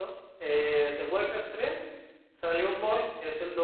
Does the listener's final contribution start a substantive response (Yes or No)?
No